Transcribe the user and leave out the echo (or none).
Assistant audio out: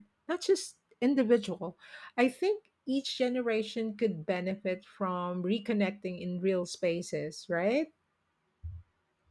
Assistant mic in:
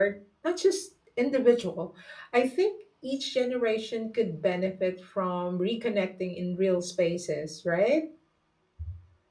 none